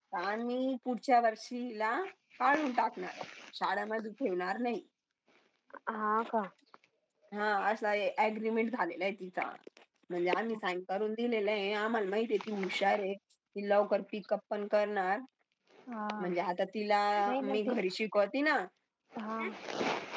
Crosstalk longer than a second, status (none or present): none